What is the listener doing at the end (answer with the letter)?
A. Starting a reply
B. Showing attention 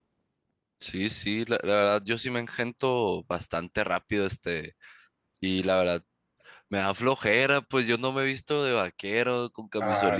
B